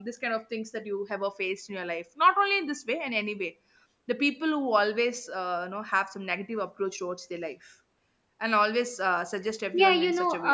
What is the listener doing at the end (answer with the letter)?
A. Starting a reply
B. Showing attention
A